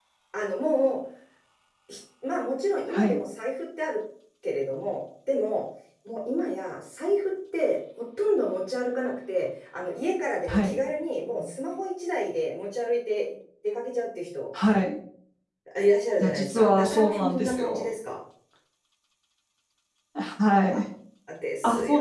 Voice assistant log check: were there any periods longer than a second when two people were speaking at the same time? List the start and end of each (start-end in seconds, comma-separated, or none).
16.2-17.9